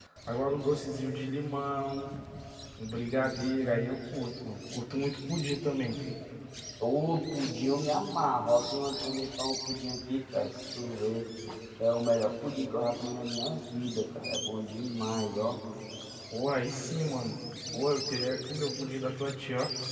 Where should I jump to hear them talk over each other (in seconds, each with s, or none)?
none